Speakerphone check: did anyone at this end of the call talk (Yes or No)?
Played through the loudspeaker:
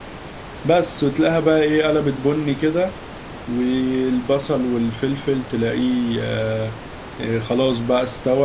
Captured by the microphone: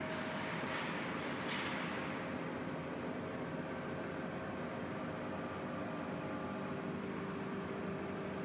No